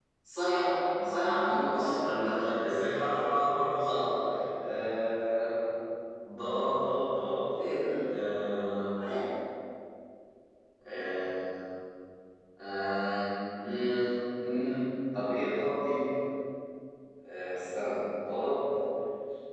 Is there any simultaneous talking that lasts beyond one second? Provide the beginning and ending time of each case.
1.1-2.3

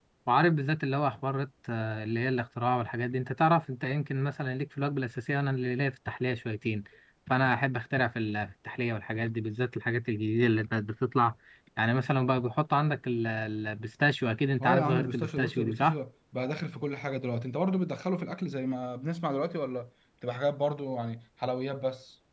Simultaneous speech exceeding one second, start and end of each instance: 14.6-15.9

